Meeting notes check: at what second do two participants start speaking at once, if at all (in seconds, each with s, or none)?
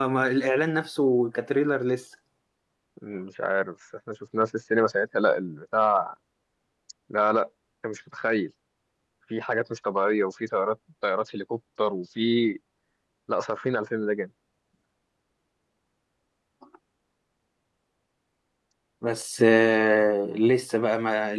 none